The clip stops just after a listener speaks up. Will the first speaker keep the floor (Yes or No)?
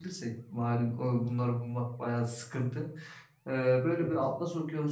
Yes